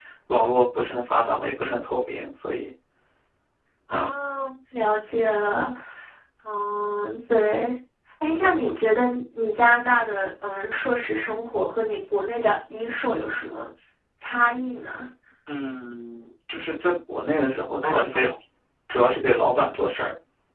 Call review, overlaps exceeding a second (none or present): none